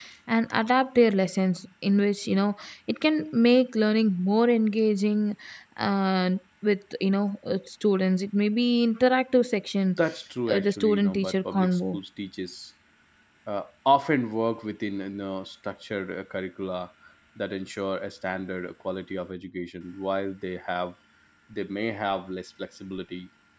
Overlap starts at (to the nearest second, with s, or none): 10 s